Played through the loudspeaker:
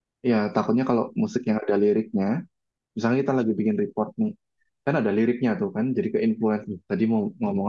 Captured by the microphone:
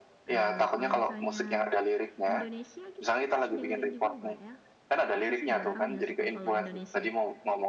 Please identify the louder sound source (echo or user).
echo